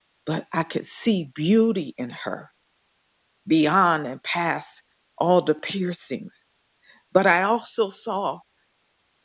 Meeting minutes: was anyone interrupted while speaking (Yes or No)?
No